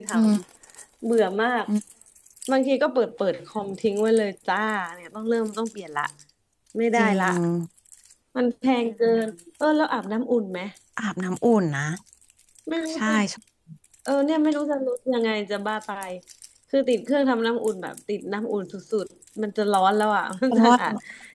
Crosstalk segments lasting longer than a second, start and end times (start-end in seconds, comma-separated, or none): none